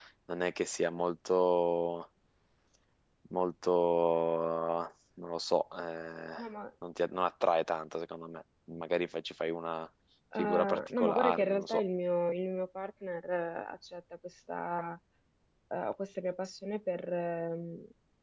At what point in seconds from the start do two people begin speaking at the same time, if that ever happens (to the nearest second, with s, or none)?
10 s